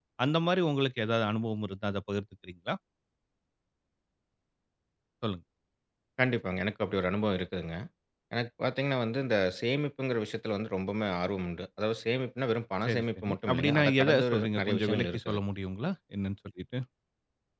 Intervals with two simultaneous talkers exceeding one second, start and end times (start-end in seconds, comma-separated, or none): 12.9-15.4